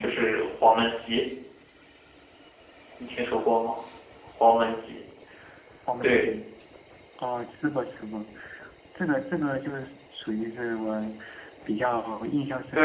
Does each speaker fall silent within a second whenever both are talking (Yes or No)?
Yes